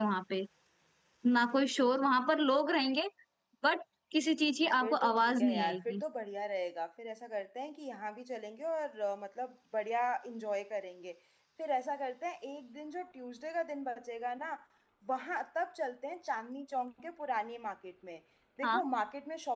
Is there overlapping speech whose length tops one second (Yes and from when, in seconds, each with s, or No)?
Yes, from 4.8 s